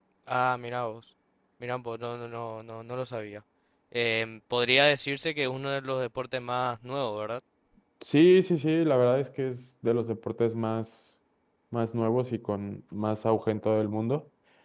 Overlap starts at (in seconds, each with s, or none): none